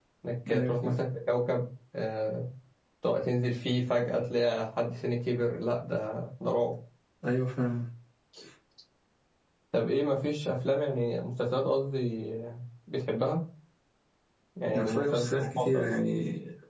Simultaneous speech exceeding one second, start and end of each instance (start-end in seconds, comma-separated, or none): 14.7-15.9